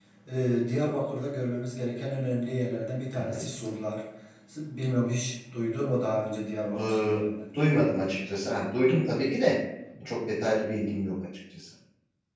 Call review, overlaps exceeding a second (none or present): none